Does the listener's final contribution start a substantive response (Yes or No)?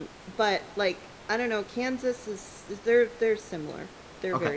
Yes